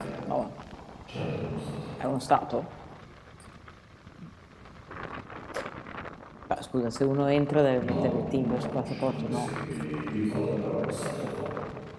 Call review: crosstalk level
present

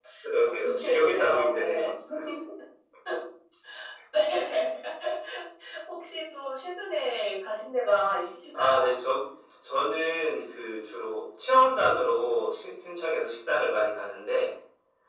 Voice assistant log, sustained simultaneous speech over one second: present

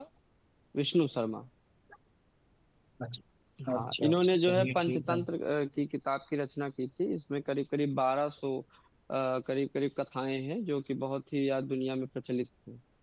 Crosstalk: present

